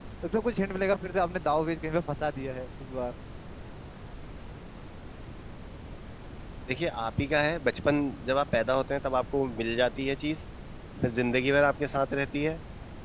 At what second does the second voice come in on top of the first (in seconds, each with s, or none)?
none